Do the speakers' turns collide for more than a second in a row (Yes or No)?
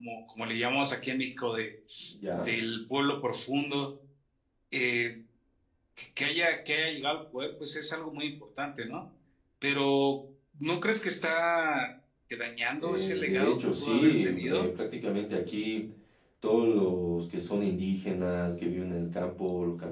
Yes